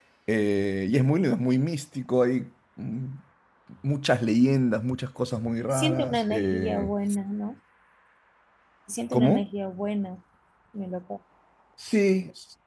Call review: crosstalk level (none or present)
present